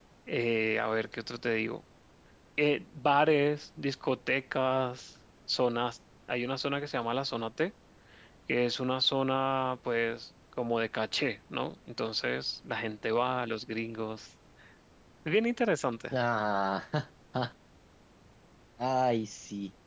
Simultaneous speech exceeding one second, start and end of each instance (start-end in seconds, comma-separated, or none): none